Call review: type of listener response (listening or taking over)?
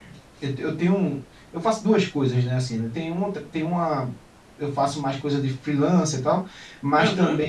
listening